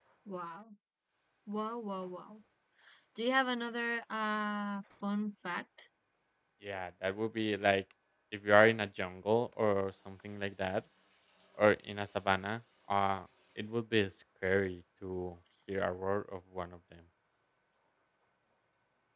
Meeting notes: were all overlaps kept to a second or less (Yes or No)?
Yes